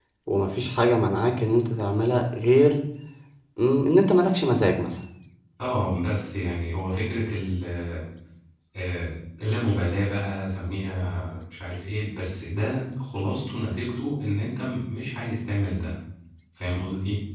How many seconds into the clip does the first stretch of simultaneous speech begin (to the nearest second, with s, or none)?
none